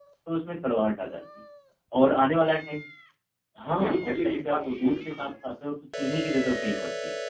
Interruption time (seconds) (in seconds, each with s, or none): 3.8 s